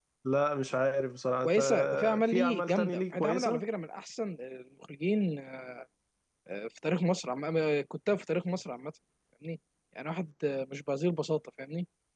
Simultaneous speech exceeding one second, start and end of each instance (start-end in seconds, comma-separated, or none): 1.4-3.6